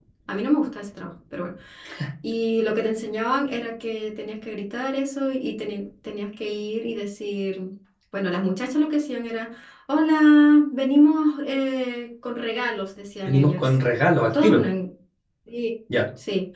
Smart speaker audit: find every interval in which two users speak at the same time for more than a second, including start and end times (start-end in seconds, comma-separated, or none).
none